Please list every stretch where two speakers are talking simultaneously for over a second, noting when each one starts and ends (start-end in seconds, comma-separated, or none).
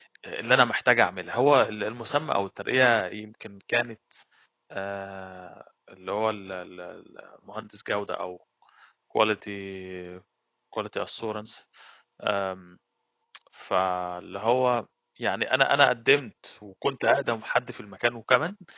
none